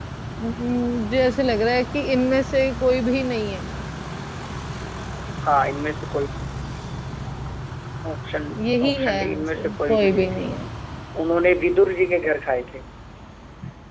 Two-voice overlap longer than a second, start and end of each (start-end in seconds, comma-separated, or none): 8.9-10.4